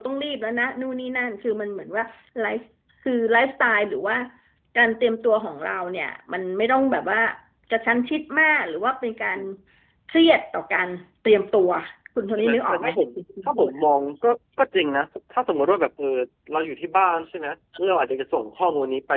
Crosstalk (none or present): present